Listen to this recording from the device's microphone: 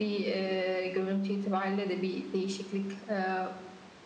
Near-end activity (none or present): none